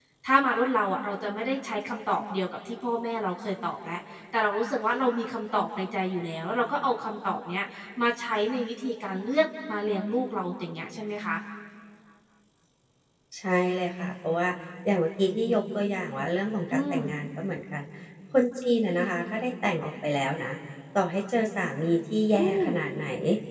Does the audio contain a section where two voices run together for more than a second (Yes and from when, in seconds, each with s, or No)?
No